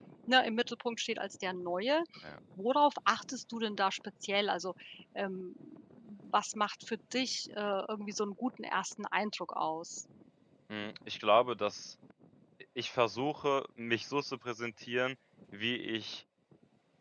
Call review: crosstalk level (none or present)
none